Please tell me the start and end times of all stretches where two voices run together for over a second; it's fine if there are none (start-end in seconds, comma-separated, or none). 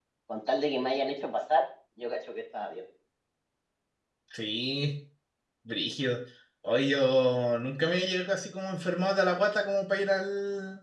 none